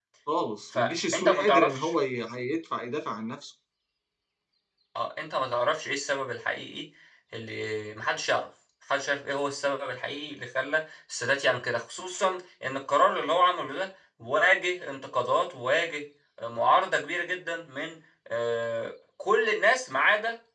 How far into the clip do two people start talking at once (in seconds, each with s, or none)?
0.7 s